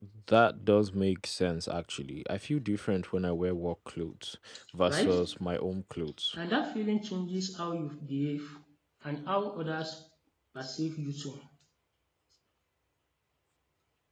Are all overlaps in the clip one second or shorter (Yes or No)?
Yes